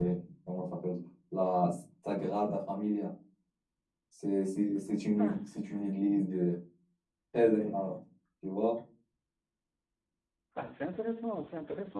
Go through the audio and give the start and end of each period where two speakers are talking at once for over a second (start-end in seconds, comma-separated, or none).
none